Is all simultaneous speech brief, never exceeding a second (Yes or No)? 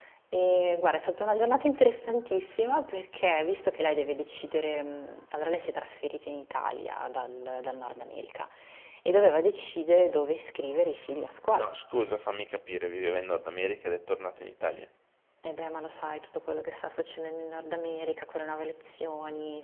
Yes